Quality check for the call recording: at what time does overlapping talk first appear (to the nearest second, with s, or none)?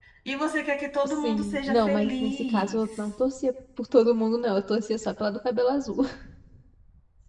1 s